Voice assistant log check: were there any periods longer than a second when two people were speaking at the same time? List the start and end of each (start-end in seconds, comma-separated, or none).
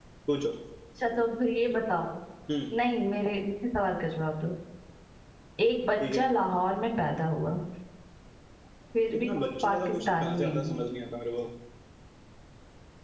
9.2-10.7